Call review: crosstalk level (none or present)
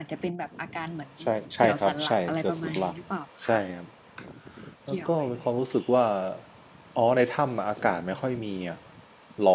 present